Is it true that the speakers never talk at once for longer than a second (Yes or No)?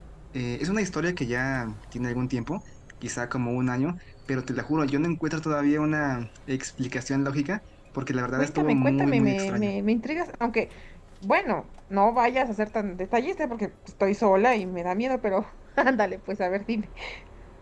No